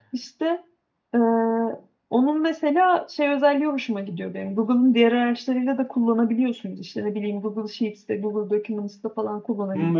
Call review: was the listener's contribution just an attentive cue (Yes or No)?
No